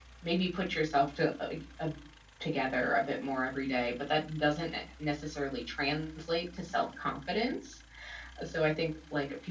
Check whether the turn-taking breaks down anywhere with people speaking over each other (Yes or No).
No